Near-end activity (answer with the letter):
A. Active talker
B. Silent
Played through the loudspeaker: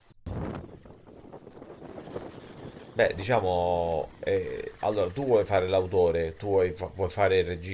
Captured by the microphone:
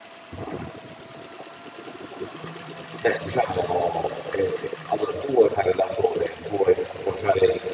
B